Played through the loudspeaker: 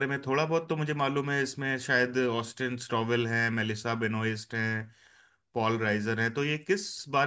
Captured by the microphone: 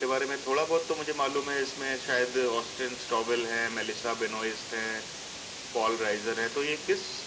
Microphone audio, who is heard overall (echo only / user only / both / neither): echo only